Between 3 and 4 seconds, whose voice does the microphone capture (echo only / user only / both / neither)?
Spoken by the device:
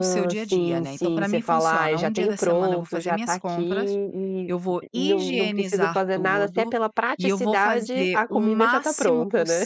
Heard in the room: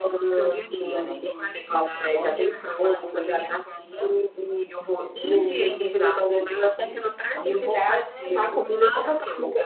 echo only